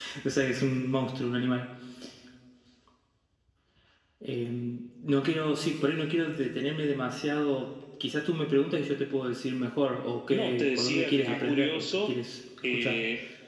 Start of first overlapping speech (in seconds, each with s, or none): 10.3 s